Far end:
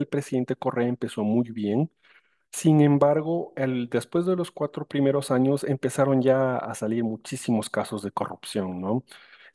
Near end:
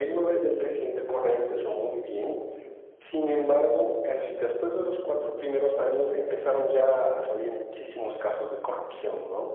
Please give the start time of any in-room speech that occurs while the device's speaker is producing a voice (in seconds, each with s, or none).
none